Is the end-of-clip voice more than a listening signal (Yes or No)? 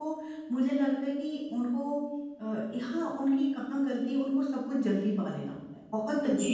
Yes